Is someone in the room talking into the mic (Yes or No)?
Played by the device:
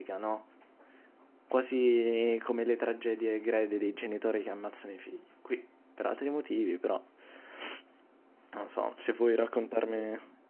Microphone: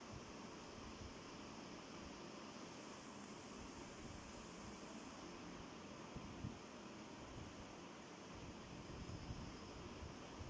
No